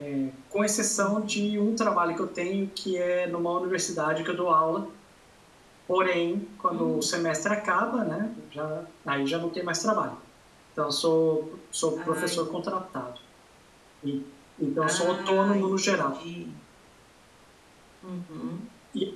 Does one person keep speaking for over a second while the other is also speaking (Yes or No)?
Yes